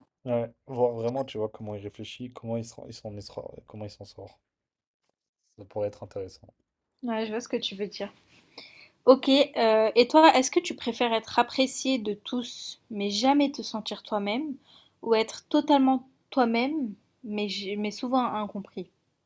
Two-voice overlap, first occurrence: none

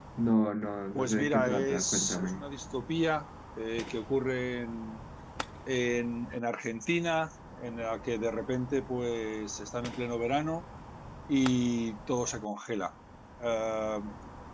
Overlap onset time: 1 s

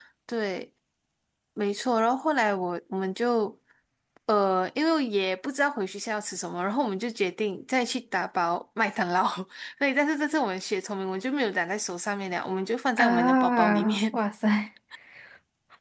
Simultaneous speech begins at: 13 s

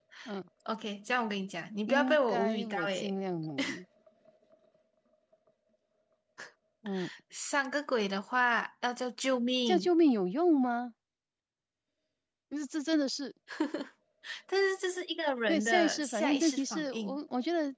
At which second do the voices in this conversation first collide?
2 s

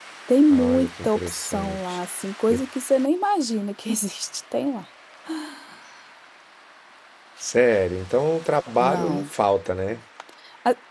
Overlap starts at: 1 s

